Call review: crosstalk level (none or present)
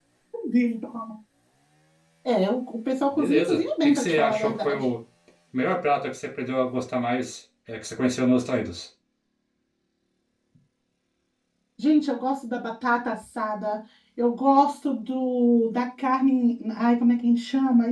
present